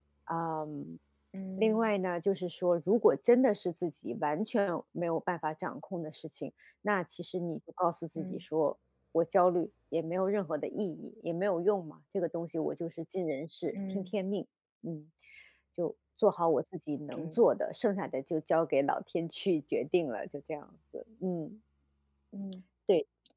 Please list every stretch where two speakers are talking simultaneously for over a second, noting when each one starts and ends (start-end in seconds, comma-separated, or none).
none